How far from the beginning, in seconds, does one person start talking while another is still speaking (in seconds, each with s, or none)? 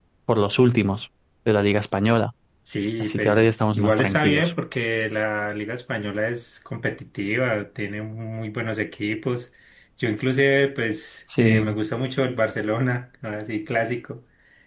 3.0 s